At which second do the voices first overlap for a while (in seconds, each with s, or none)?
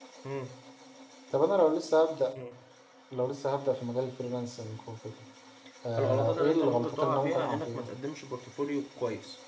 6.0 s